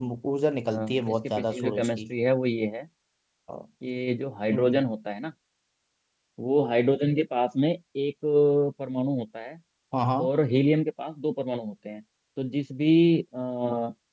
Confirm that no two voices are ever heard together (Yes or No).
No